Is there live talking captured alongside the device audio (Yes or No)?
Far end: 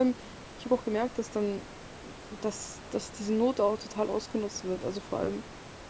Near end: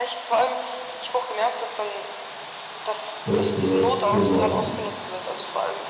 Yes